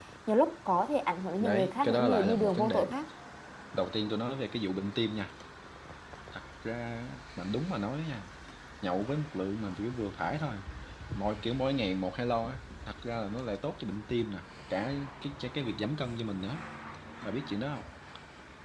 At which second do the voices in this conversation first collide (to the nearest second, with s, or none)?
1 s